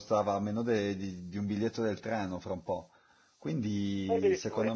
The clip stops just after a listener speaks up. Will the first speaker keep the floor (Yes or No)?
Yes